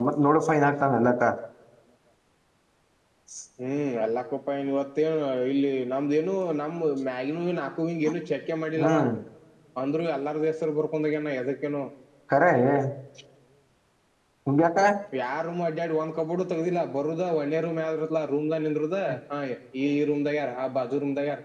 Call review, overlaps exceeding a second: none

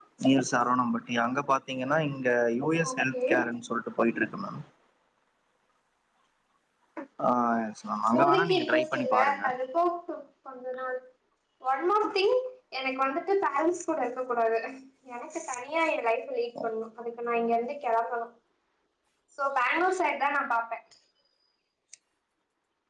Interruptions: present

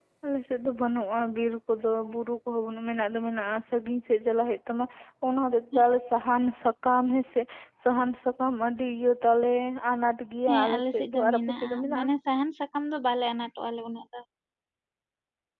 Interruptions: present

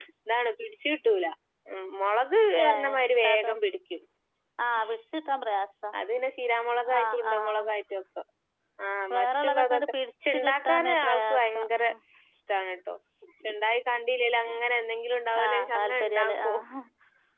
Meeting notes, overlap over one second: present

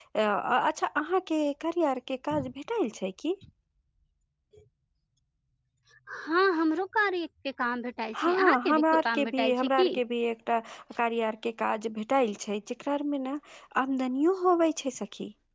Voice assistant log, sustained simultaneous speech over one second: present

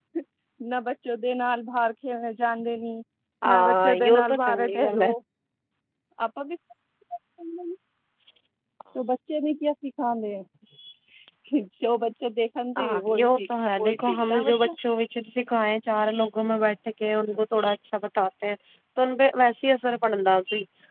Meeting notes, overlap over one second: present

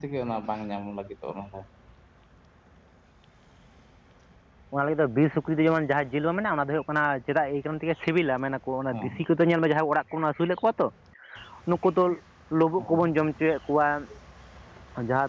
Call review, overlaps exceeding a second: none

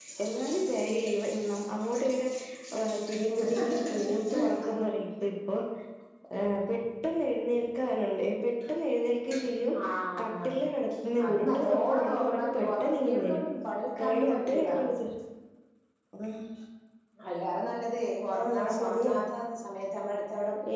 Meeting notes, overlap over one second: present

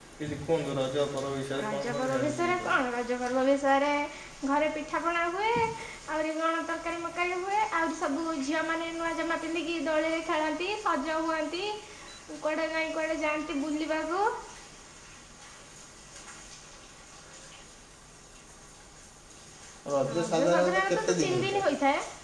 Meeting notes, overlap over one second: present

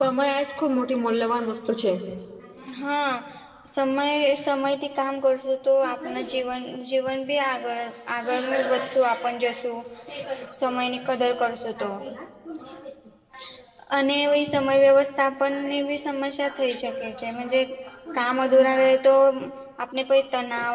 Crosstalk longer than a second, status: none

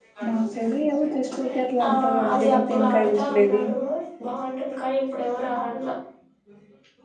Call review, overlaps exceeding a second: present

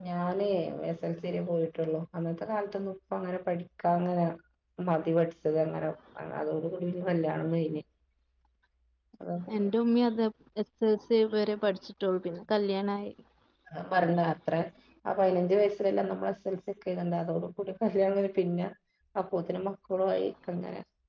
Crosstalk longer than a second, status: none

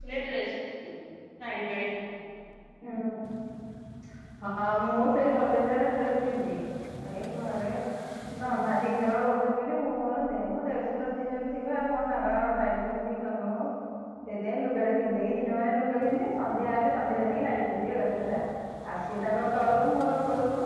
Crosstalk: none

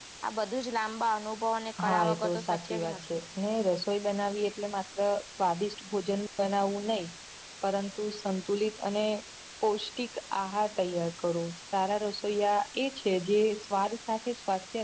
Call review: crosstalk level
present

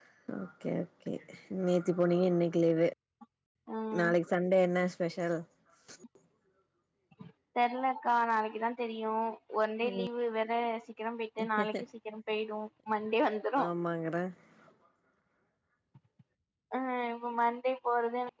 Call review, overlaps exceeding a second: none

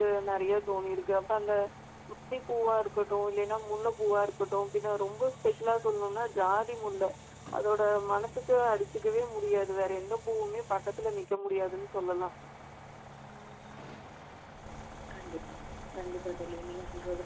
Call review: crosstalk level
none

